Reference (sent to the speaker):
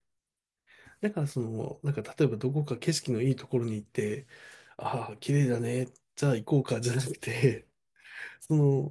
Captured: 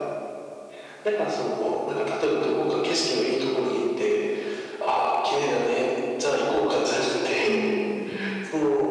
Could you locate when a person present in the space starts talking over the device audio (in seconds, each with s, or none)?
7.5 s